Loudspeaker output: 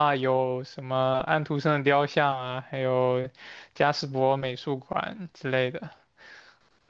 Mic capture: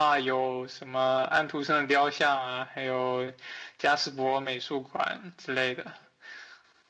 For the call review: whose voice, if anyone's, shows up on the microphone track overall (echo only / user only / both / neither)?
echo only